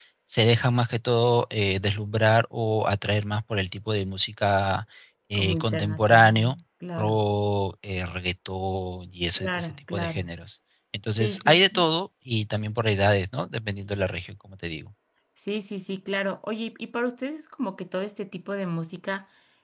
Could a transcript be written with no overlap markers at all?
No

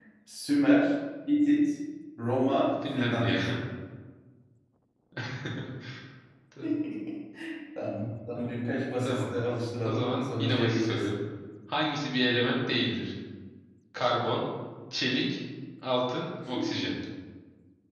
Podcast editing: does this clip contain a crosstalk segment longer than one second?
Yes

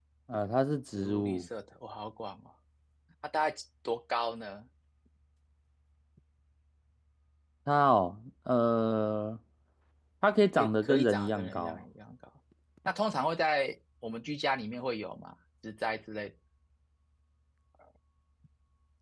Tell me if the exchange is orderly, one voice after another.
No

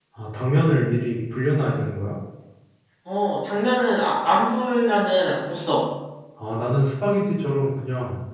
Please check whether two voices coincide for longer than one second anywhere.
No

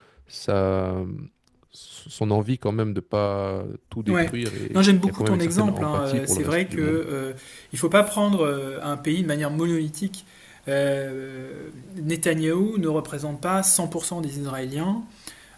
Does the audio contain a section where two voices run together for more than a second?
Yes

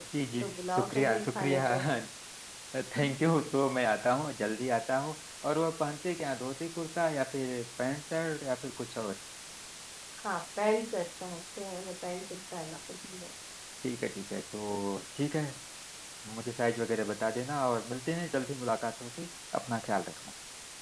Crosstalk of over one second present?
Yes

